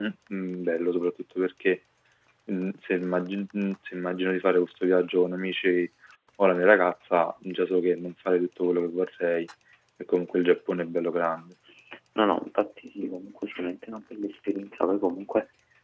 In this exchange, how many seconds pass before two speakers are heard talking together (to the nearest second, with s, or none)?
none